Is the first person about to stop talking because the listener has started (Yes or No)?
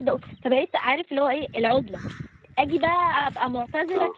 No